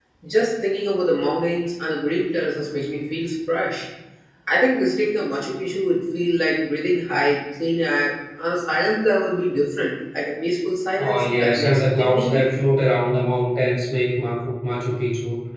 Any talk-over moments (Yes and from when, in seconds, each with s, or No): Yes, from 11.0 s